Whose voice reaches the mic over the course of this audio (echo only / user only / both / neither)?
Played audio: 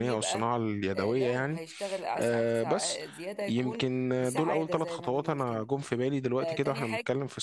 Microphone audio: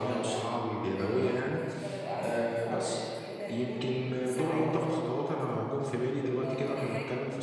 echo only